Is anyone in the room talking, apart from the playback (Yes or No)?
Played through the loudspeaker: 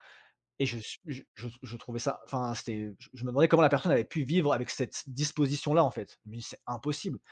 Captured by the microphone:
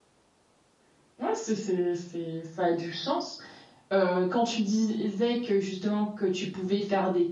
Yes